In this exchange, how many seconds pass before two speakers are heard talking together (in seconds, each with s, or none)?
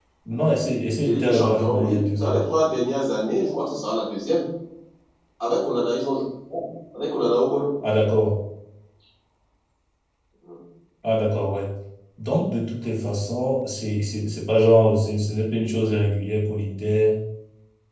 1.0 s